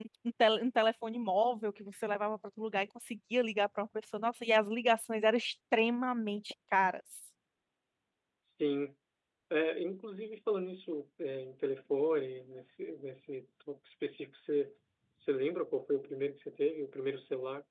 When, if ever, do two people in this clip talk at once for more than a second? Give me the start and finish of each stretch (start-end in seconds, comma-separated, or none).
none